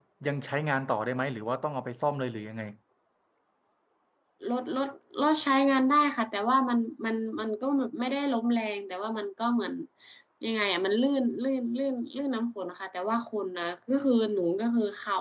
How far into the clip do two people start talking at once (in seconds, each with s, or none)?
none